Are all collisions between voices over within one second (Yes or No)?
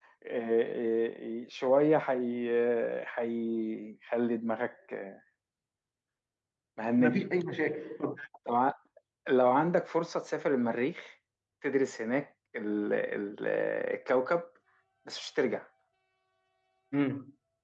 Yes